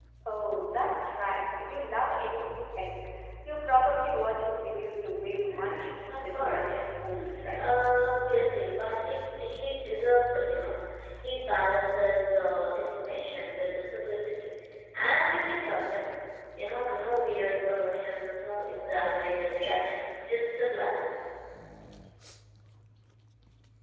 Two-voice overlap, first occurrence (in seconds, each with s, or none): 5.5 s